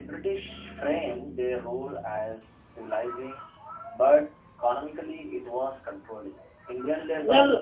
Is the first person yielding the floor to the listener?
Yes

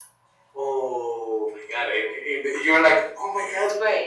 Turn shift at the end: No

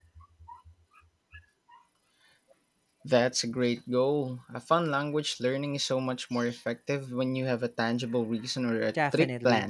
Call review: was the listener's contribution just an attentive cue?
No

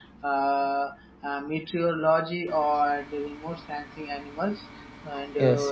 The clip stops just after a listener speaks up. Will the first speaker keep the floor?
Yes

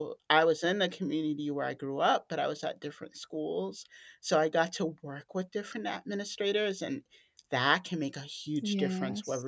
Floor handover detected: No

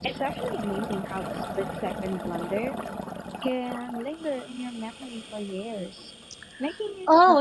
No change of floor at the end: No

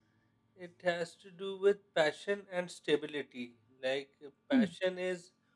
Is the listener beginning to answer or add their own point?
No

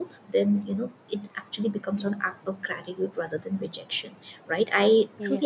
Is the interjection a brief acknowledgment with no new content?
Yes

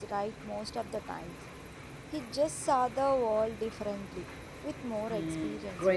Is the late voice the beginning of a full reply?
Yes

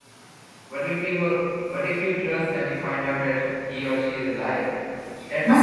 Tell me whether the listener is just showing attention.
No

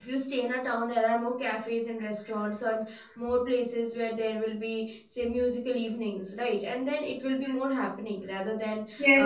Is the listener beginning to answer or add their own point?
Yes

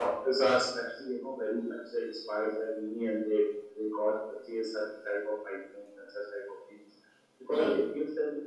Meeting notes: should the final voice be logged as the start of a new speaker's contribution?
No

